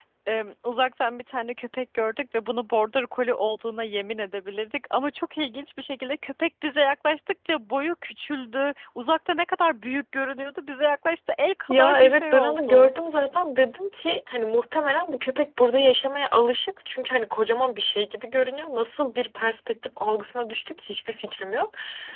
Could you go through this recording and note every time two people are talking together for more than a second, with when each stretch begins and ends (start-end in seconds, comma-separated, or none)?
11.7-12.9